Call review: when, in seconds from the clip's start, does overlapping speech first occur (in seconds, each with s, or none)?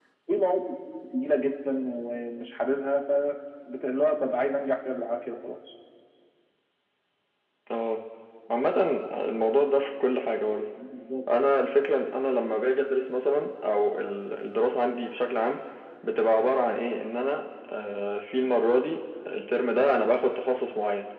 none